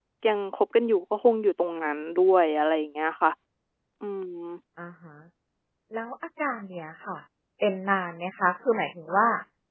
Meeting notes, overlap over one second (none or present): none